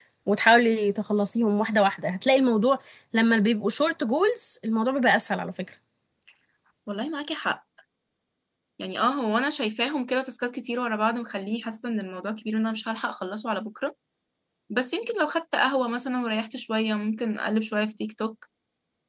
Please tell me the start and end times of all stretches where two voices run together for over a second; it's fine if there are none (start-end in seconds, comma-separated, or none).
none